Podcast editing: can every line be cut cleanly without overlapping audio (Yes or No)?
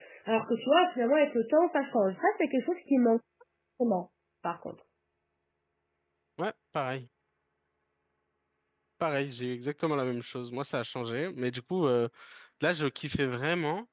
Yes